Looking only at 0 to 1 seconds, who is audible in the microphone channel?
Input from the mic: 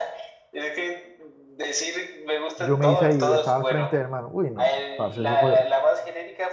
echo only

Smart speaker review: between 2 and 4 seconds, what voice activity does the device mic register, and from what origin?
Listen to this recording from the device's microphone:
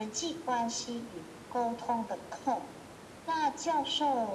echo only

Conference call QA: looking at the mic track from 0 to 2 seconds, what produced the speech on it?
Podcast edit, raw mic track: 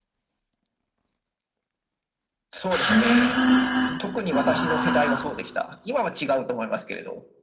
neither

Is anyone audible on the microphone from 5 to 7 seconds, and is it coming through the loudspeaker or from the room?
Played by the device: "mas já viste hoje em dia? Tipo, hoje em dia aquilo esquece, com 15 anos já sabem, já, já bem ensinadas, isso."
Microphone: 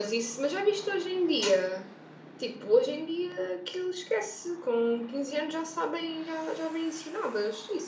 echo only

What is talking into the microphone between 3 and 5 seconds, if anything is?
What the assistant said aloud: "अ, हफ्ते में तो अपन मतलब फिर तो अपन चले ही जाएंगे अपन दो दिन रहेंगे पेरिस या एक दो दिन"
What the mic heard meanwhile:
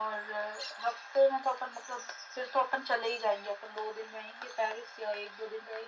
echo only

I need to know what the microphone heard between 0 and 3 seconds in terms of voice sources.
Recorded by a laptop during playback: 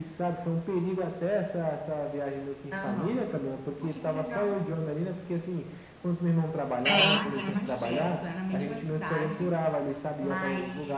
echo only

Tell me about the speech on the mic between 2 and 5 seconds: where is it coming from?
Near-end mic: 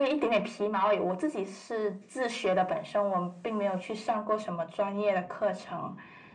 echo only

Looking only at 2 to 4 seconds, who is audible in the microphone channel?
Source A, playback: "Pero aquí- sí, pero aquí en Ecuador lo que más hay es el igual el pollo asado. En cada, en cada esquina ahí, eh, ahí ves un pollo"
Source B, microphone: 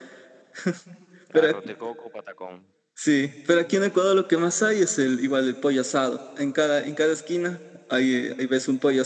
both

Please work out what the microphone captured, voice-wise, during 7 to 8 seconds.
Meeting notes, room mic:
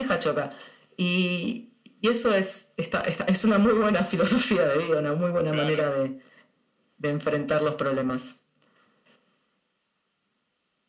echo only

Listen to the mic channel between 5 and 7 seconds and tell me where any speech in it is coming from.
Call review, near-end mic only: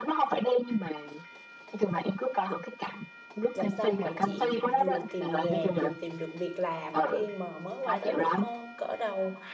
both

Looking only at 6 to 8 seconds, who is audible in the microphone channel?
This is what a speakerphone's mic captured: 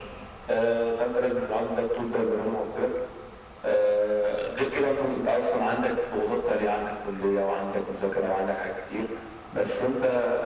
echo only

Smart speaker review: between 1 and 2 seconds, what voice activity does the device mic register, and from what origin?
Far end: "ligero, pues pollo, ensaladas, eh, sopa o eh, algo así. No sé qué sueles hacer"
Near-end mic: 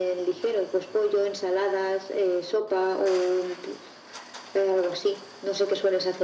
echo only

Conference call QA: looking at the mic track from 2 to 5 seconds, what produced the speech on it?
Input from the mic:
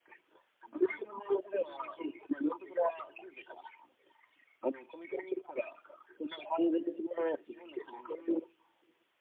echo only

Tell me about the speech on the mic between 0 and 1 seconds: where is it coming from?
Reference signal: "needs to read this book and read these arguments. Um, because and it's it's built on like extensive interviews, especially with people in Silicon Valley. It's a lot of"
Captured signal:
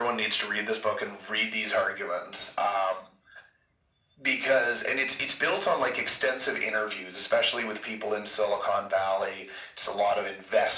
echo only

